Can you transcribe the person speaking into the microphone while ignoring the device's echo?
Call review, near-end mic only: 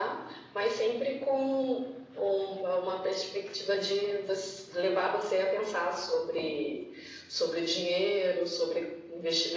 none

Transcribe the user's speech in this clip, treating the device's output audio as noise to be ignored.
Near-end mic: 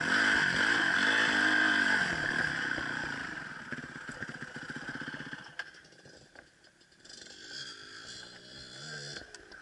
none

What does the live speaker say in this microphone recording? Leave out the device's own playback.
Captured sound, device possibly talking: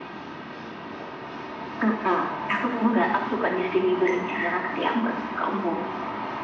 none

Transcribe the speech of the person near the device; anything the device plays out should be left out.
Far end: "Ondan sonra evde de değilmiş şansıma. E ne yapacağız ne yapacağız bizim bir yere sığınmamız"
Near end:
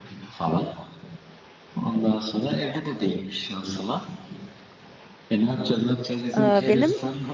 Aa, benim

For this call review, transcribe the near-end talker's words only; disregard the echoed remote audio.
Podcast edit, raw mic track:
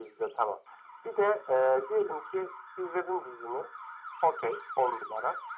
none

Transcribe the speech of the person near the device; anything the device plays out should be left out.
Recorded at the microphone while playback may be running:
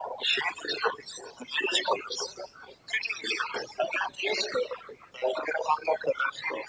none

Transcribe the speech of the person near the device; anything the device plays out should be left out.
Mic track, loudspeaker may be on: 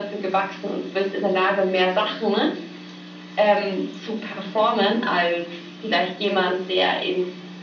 none

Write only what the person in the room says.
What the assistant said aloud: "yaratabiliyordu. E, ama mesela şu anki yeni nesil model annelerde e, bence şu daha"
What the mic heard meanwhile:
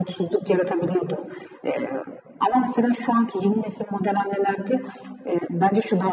none

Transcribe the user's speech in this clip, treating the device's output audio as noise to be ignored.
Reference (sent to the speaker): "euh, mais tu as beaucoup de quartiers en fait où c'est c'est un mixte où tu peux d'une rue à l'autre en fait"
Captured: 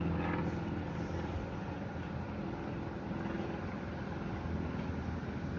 none

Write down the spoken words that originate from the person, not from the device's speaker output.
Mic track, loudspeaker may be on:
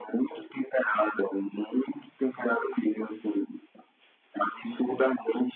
none

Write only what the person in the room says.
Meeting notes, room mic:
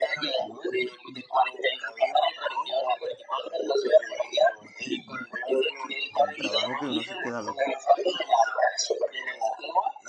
en el trabajo que uno se queda loco.

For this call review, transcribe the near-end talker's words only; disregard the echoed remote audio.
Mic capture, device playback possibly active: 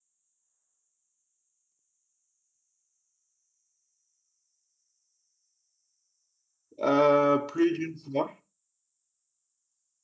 euh, plus d'une fois.

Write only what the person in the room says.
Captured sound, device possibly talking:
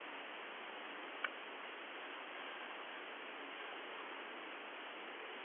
none

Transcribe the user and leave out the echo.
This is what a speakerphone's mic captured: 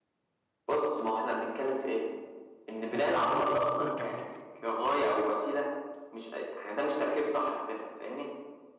ما انا قايل لك لو ظبطت التكنيك

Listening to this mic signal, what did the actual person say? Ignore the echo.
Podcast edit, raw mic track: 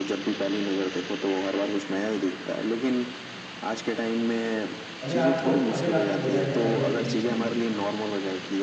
अगर आपको अगर आपको बोला जाए अरेंज मैरिज करने के लिए

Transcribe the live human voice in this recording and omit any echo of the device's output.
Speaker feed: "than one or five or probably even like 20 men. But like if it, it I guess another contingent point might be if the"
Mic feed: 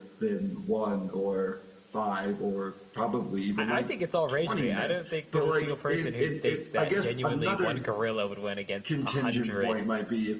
I, I think it's all rage bait. I don't think there's a single person who thinks that genuinely one gorilla would win against a hundred

